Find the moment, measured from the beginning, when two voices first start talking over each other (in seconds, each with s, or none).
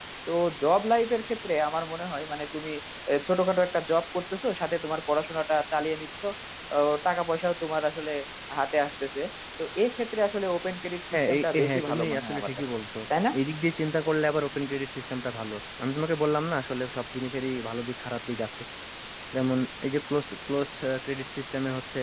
11.1 s